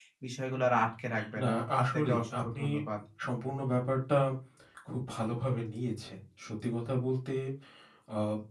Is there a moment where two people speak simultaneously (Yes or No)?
Yes